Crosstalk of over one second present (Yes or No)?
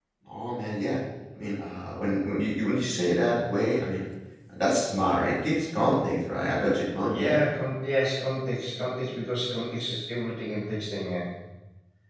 No